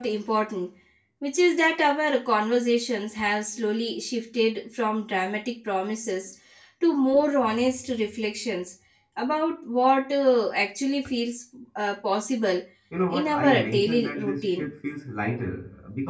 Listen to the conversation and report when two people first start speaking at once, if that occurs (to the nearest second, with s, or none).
13 s